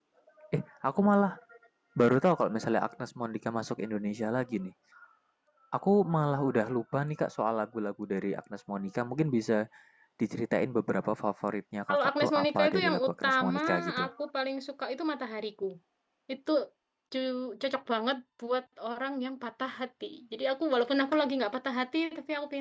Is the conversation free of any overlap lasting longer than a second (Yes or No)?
No